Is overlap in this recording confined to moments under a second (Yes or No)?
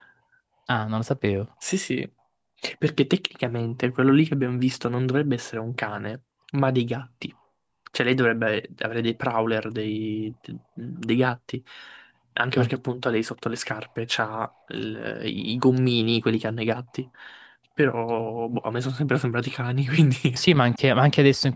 Yes